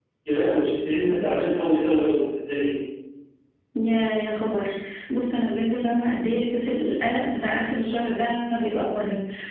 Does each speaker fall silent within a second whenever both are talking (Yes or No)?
Yes